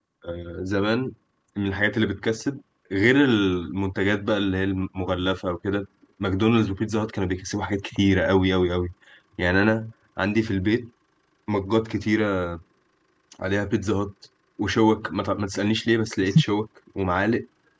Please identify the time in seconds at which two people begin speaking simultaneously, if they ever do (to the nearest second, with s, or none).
none